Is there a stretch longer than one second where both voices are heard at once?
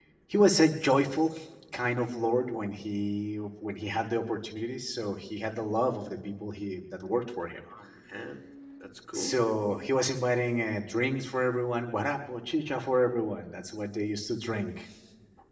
No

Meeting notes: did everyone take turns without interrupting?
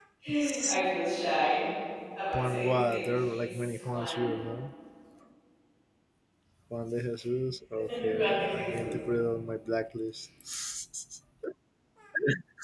No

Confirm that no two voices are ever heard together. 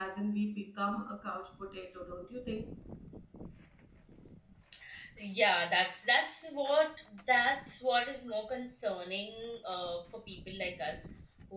Yes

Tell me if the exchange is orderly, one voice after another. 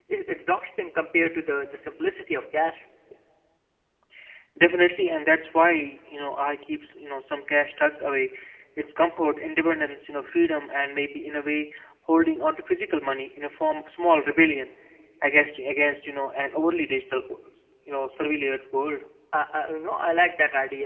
Yes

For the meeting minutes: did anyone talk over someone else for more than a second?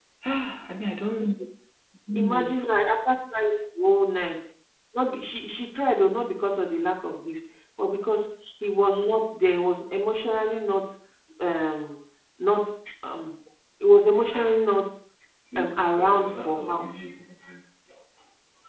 Yes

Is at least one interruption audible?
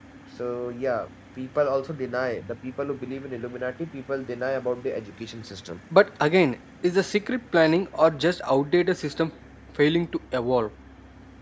No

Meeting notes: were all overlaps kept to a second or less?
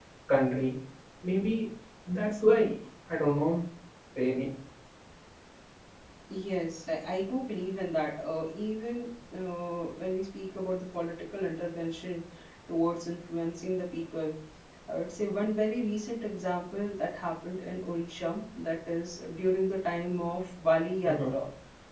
Yes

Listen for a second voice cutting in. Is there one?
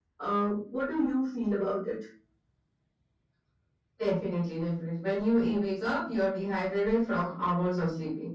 No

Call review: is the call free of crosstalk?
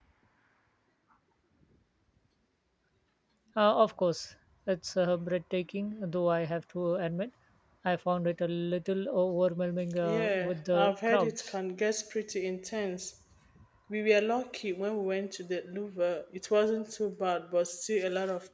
No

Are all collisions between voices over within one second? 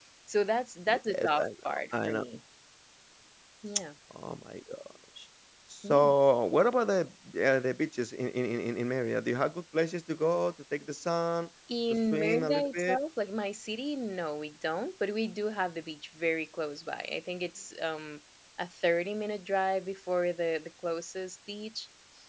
No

